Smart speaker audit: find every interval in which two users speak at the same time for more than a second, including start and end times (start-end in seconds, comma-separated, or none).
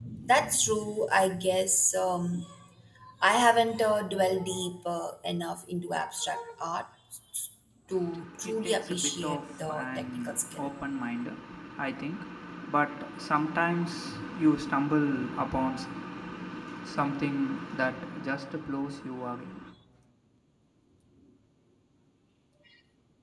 8.4-10.7